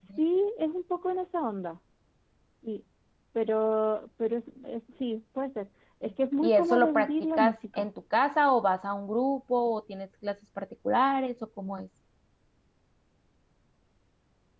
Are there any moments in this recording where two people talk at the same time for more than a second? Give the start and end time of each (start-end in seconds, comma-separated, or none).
6.4-7.9